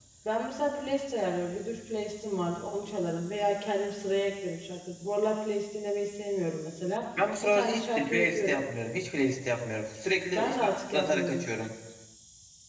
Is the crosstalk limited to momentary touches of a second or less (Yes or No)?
No